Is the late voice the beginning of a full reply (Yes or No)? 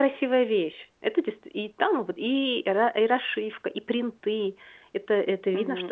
Yes